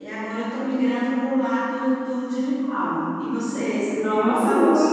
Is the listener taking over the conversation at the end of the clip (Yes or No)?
Yes